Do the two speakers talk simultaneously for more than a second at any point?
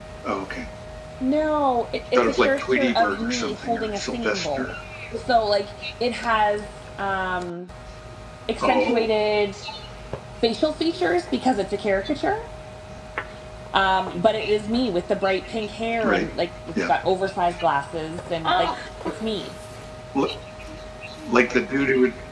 Yes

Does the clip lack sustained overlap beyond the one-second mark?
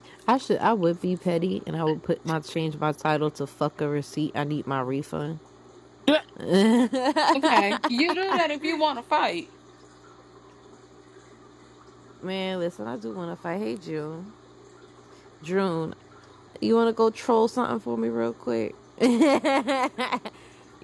Yes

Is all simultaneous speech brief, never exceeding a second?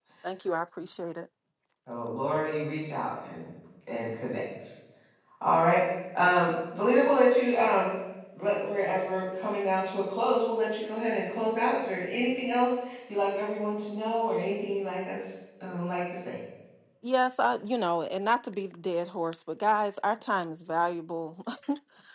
Yes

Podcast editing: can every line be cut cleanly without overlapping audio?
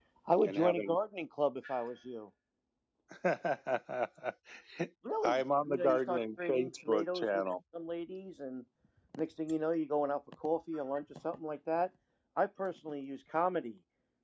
No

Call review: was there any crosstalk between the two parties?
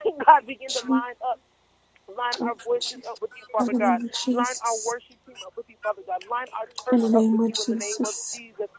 Yes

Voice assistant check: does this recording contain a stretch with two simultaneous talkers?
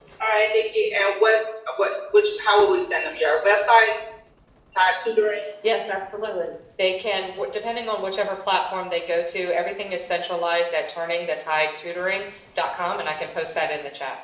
No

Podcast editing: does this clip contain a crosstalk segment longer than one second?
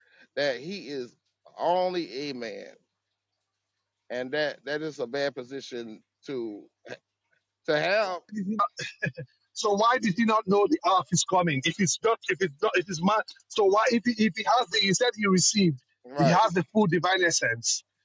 No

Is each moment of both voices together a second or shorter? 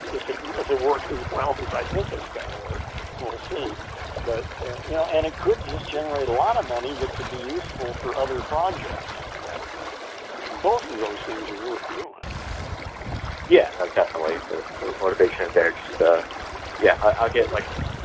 Yes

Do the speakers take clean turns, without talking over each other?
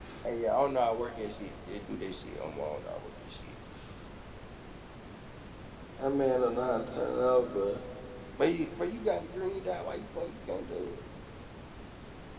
Yes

